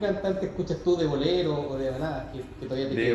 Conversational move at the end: taking over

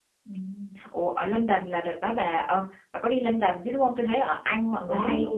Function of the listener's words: listening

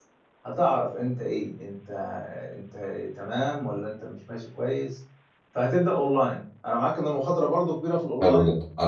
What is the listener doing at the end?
taking over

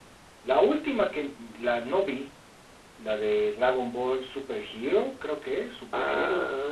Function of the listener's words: taking over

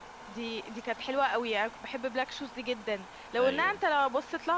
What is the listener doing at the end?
listening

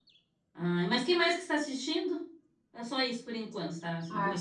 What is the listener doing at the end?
taking over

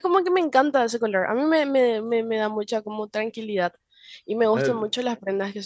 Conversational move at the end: listening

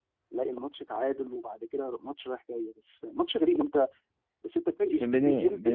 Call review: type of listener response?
taking over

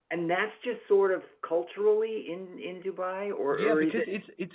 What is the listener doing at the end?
taking over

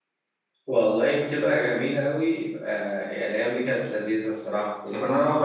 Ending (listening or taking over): listening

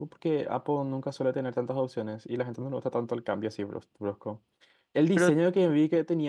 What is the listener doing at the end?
listening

